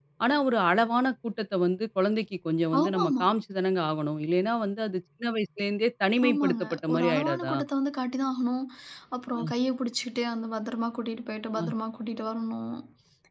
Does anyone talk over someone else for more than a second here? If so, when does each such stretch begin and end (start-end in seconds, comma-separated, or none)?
6.3-7.5